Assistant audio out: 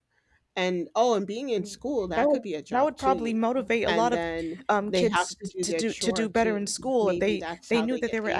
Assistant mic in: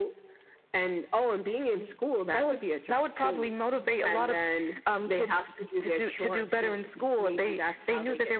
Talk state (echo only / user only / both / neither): echo only